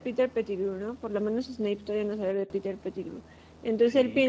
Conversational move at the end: listening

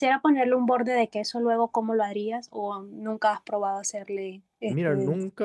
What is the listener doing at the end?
taking over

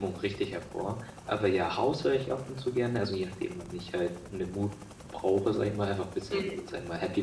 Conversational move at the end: listening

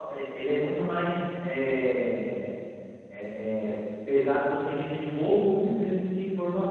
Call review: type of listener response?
taking over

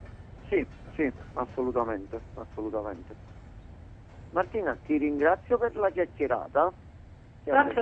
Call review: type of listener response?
taking over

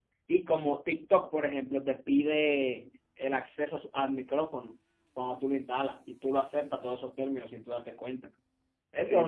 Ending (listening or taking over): taking over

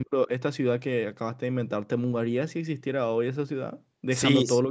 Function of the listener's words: taking over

